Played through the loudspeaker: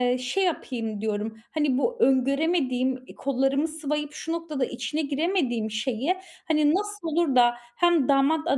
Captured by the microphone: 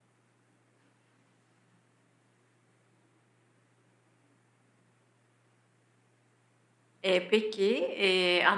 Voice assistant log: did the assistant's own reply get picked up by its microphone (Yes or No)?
No